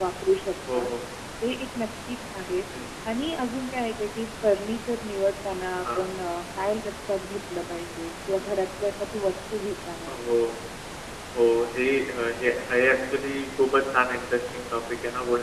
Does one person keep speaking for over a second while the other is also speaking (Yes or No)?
No